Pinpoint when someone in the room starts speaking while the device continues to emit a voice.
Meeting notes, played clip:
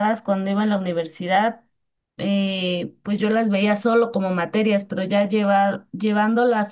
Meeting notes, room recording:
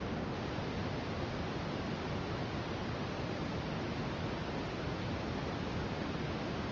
none

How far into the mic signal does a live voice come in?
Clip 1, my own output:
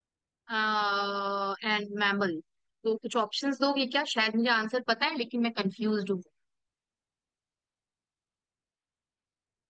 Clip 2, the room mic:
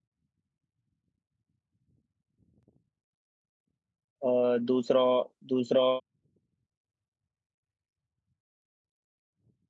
4.3 s

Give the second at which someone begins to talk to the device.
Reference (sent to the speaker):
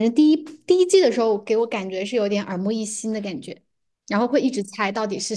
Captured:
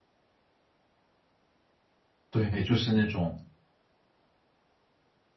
2.3 s

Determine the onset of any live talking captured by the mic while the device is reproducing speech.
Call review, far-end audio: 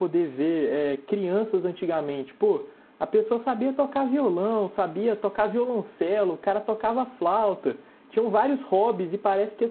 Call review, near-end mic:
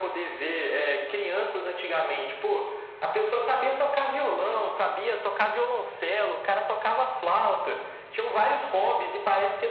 none

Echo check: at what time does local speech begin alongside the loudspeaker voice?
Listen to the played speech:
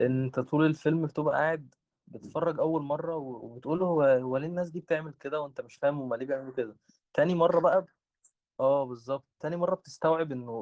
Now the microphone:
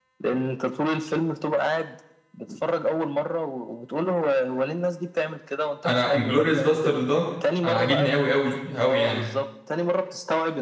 5.8 s

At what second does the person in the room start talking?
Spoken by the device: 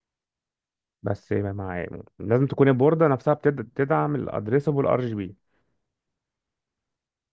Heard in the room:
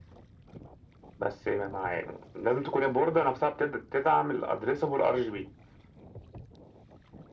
none

